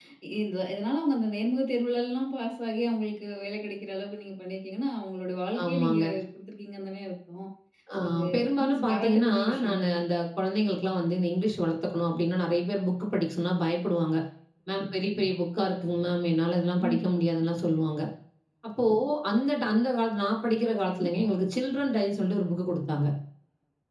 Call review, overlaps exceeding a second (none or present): present